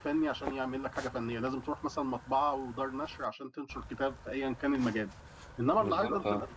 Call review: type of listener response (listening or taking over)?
listening